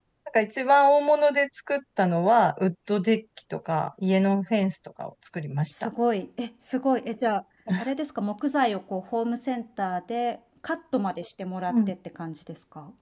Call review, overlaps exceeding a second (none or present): none